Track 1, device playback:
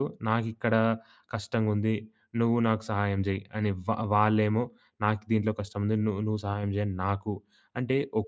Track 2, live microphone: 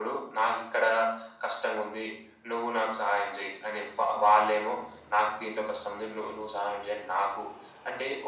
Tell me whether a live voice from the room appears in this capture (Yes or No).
No